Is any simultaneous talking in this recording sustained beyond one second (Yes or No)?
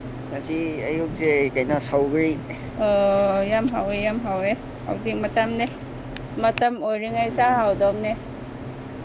No